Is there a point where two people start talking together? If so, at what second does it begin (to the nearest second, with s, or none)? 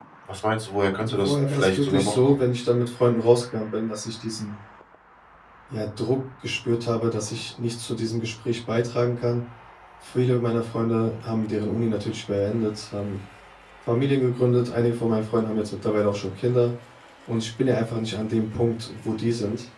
1 s